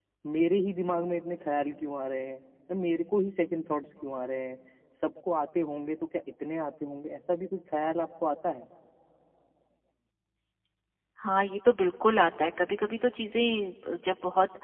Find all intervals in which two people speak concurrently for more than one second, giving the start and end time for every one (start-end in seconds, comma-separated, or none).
none